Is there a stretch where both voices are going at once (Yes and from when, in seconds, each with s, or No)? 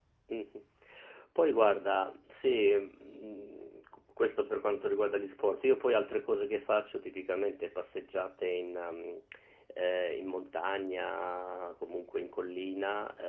No